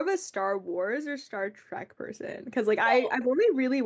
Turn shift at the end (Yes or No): No